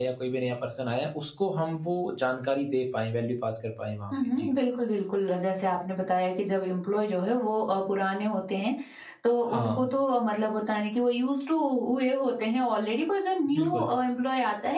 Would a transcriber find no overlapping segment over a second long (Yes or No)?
Yes